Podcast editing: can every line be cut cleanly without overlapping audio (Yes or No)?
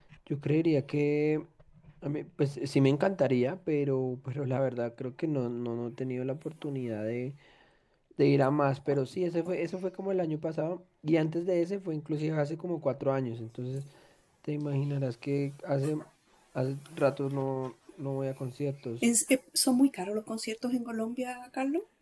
Yes